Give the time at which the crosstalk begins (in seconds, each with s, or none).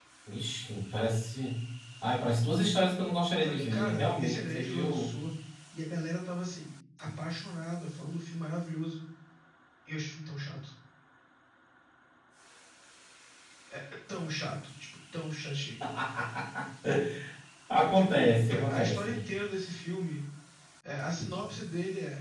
3.4 s